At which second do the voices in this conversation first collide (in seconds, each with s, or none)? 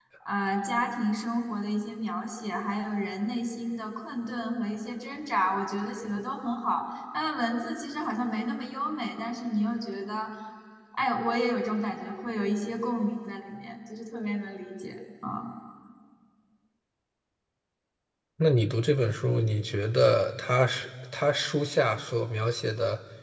none